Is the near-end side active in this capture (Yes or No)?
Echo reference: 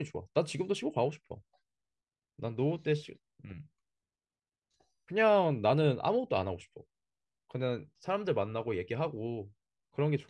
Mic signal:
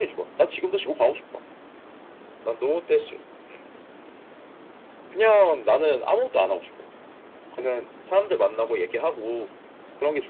No